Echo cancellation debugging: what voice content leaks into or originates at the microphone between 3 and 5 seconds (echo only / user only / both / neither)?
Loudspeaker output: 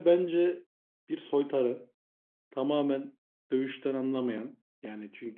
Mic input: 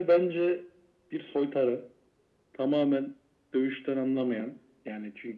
echo only